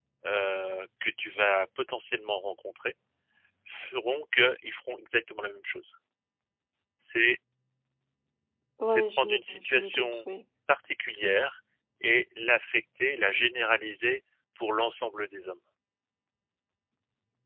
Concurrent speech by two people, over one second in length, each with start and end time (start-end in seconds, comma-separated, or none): 8.8-10.2